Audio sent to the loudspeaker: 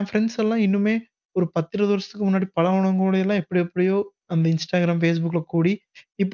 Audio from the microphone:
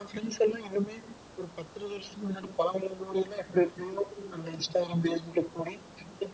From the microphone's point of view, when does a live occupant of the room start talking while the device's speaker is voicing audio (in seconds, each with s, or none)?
none